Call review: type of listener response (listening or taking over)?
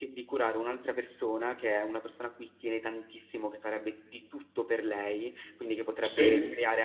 listening